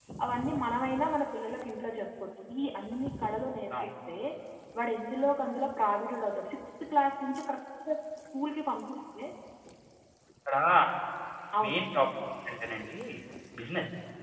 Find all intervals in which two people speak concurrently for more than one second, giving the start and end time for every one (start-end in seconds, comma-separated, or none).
none